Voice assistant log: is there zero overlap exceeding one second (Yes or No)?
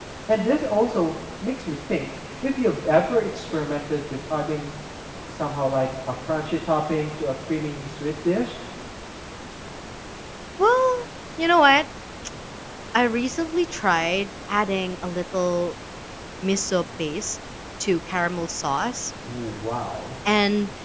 Yes